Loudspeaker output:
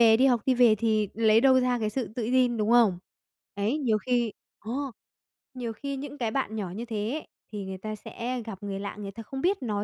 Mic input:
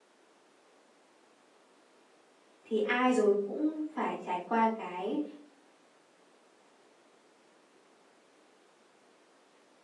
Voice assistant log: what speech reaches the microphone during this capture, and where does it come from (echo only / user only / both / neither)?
user only